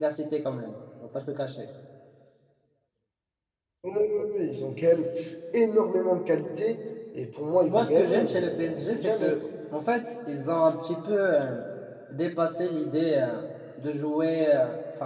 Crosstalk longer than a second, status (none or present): present